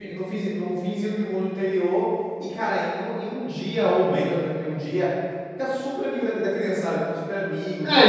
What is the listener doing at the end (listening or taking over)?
taking over